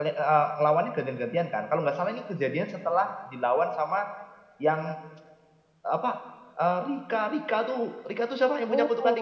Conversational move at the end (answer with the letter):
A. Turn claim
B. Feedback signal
A